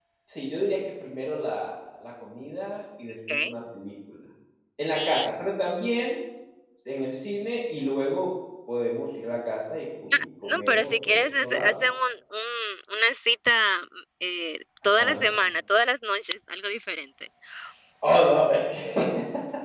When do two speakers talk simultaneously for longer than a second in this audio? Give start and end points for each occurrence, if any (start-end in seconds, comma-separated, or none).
10.1-11.7